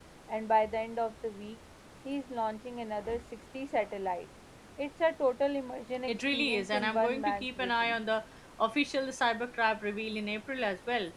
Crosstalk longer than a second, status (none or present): present